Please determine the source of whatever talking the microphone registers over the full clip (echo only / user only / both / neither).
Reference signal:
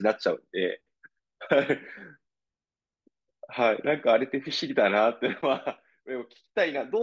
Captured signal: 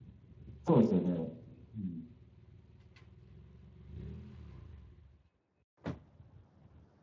user only